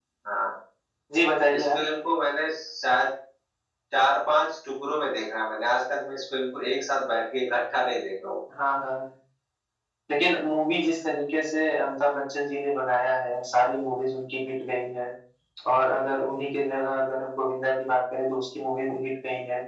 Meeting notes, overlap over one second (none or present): none